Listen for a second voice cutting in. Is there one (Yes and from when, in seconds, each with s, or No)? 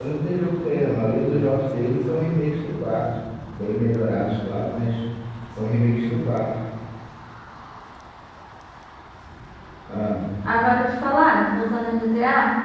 No